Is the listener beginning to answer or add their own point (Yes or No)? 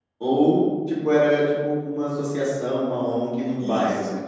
Yes